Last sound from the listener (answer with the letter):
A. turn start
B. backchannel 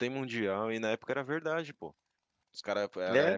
B